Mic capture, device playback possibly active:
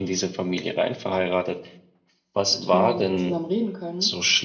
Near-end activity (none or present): present